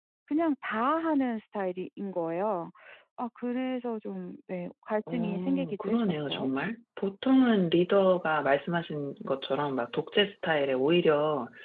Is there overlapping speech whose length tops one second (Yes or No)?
Yes